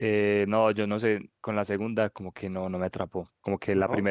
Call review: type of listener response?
listening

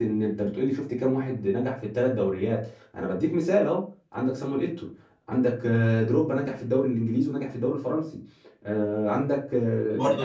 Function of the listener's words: taking over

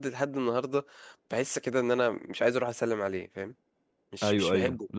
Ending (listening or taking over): taking over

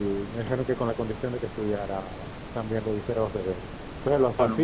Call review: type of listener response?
listening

